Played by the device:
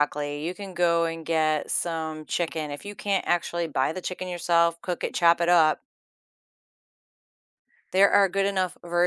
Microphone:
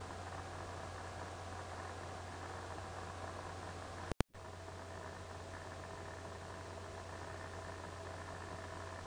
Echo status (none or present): none